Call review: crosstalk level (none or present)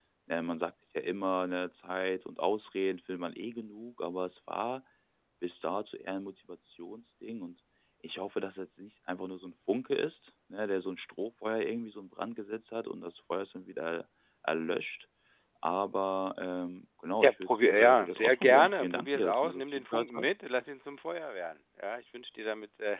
present